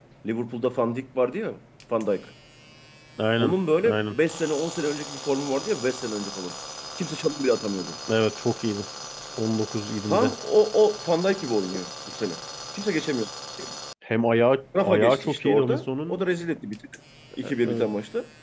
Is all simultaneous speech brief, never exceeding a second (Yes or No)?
No